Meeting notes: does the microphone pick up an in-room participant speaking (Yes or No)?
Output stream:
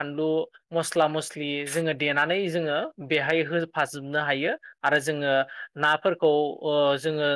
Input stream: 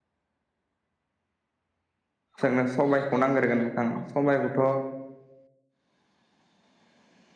Yes